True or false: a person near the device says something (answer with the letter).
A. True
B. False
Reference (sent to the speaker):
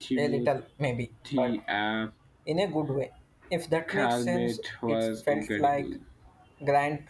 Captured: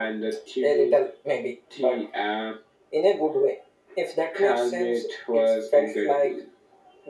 B